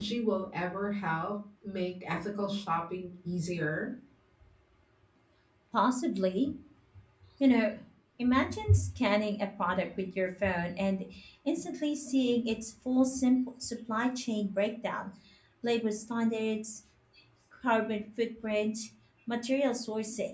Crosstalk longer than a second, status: none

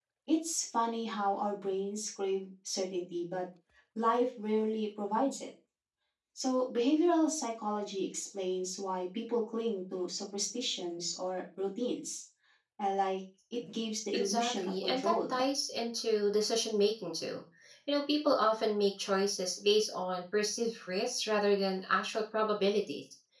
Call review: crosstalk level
present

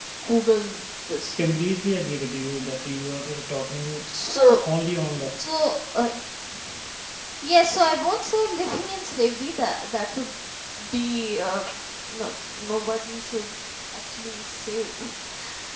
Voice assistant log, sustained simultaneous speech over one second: none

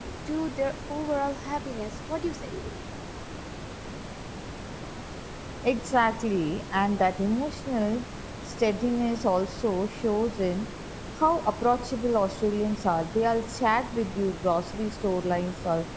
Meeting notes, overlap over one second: none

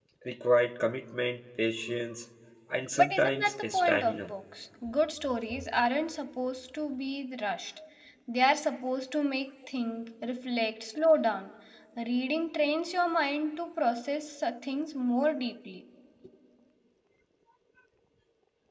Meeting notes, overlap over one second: present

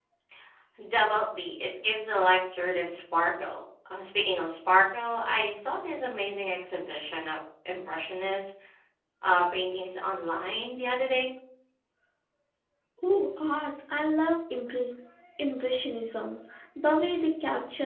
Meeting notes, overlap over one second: none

